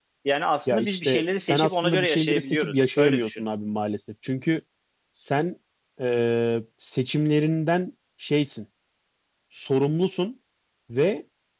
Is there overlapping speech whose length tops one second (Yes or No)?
Yes